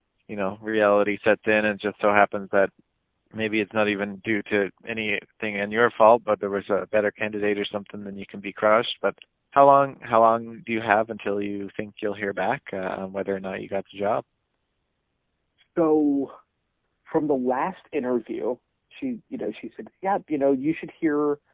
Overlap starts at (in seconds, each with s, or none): none